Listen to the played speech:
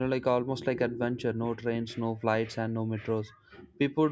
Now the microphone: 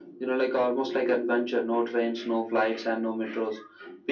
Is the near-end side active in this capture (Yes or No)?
No